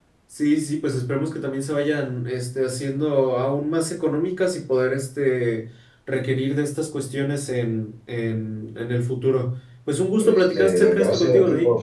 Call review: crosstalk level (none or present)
present